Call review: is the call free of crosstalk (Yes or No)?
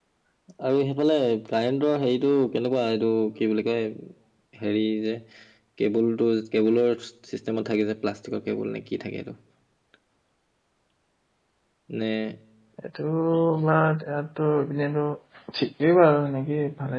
Yes